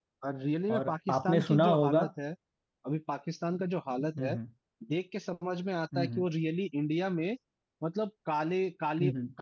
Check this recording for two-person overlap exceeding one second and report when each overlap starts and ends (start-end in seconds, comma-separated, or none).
0.7-2.0